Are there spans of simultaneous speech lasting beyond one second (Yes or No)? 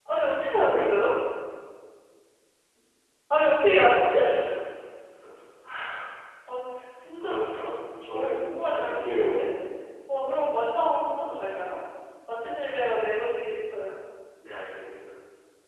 Yes